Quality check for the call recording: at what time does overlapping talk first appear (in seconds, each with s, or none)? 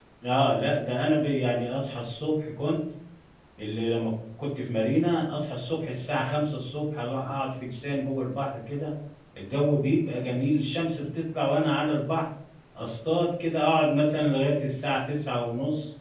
none